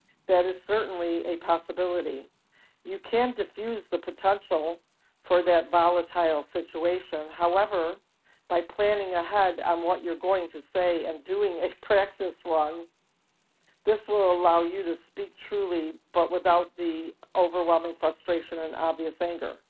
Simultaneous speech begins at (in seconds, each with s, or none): none